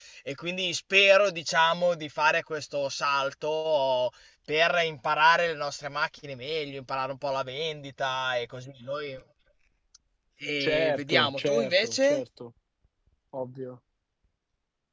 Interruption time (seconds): 10.6 s

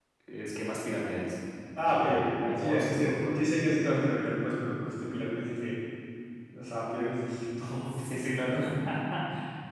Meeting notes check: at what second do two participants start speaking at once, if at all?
1.8 s

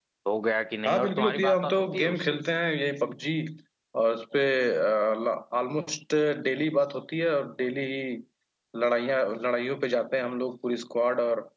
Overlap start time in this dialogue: 0.9 s

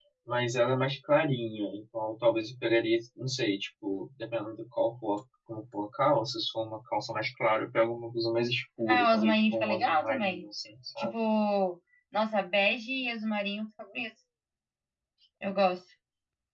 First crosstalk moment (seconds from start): 8.9 s

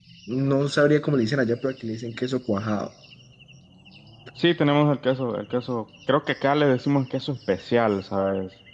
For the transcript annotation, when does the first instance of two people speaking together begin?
none

